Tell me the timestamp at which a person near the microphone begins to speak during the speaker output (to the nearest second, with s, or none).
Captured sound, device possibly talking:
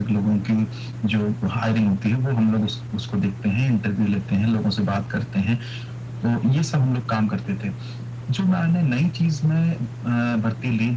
none